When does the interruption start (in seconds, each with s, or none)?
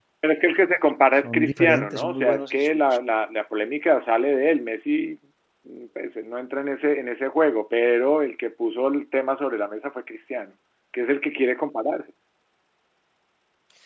1.2 s